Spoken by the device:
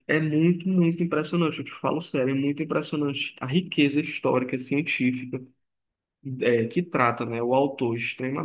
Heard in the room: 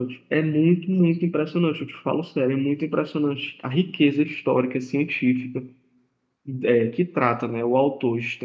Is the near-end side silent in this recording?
Yes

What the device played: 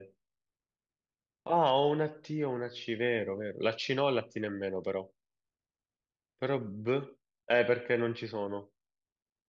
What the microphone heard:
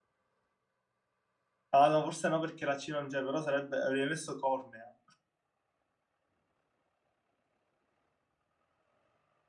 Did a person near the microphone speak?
Yes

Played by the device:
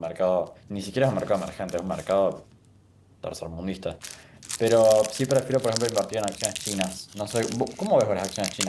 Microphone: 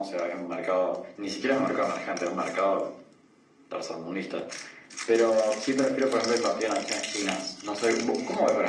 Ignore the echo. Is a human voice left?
No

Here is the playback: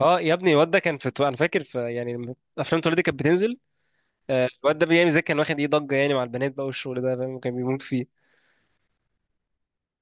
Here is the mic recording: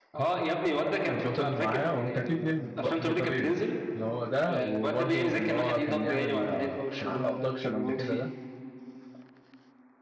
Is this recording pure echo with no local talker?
No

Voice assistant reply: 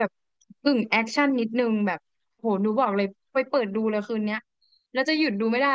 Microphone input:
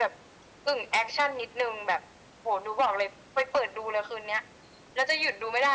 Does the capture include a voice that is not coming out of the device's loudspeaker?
No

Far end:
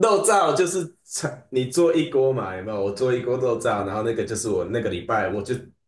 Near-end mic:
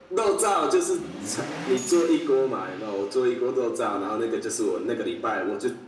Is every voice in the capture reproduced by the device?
Yes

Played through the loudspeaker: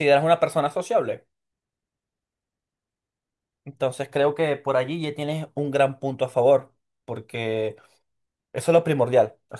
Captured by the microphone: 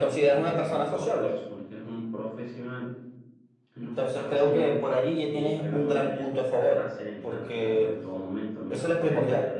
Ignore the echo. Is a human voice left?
Yes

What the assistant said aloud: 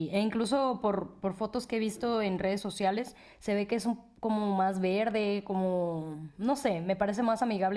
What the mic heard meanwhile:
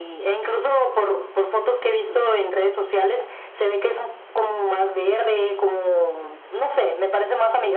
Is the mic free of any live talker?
Yes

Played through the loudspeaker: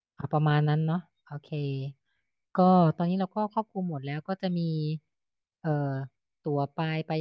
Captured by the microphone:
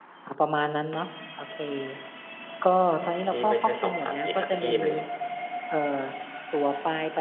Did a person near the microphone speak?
Yes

